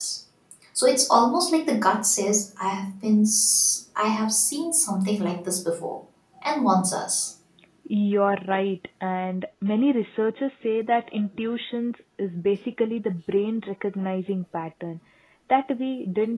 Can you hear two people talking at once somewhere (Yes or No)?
No